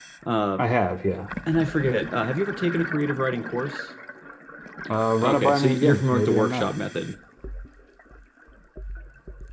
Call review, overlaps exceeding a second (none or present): present